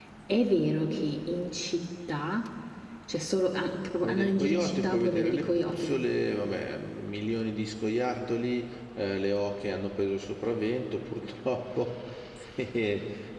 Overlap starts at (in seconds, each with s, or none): 4.0 s